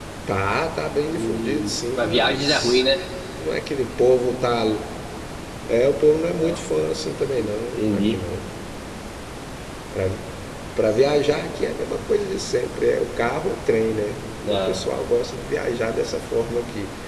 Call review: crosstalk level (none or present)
present